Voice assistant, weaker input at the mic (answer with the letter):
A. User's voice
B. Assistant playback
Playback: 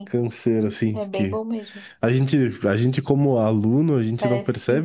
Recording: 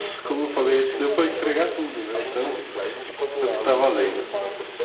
B